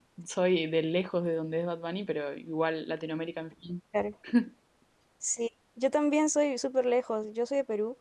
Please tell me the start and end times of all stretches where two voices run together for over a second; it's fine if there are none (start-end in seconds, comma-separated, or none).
none